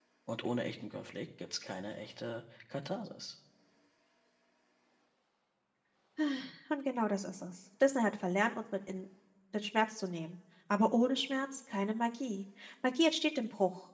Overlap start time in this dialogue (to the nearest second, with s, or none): none